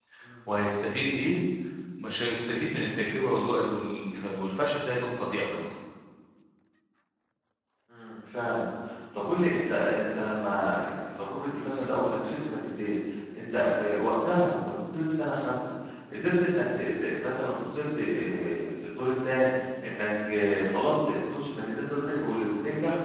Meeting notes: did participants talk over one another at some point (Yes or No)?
No